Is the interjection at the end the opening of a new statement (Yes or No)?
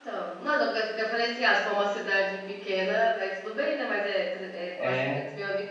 No